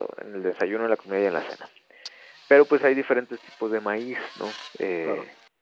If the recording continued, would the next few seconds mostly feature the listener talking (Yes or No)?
No